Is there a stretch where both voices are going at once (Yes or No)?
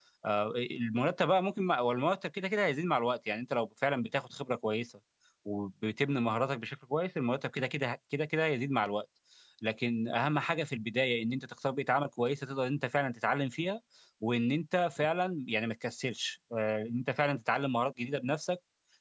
No